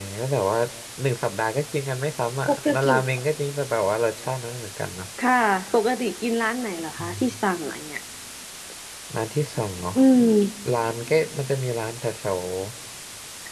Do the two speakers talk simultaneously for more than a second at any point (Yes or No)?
No